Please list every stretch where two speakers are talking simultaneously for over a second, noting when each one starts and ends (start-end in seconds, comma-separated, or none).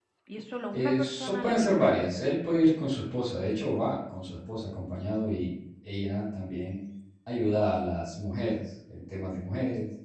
0.7-2.1